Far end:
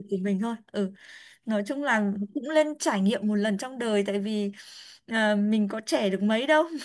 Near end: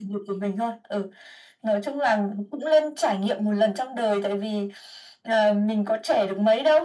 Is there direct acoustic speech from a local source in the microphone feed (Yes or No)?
No